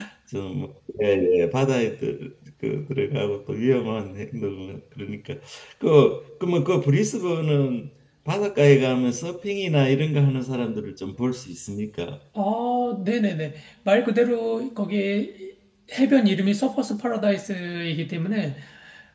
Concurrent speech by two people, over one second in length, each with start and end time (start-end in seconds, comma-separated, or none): none